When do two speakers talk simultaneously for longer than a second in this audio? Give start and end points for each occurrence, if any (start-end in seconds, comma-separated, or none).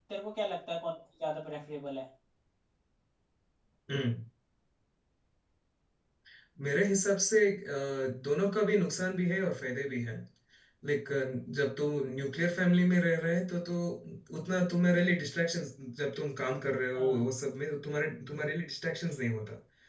none